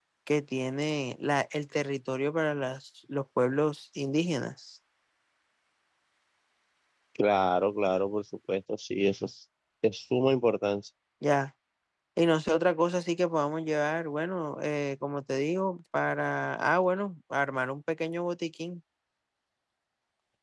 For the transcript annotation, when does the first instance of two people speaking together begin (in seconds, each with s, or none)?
none